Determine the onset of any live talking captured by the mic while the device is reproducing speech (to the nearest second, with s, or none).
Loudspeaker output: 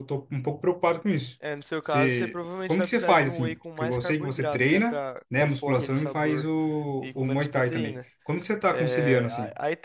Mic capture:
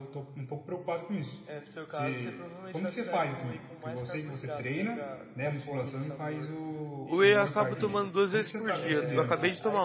7 s